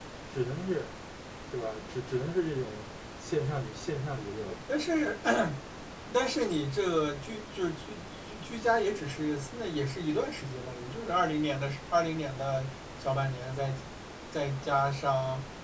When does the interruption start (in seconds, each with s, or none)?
none